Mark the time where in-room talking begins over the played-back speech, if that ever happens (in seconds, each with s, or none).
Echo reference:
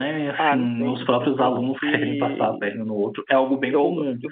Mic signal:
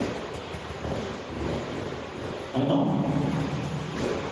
2.5 s